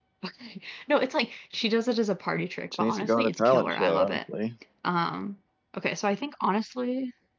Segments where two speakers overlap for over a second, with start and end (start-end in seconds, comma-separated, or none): 2.8-4.2